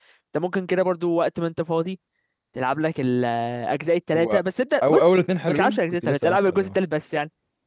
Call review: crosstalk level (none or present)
present